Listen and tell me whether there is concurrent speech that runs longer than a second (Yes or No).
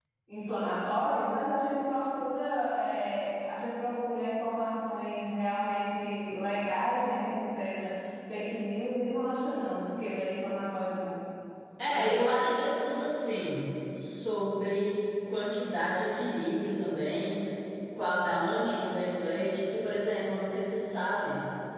No